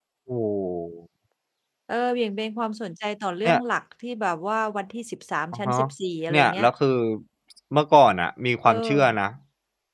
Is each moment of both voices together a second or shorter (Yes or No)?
Yes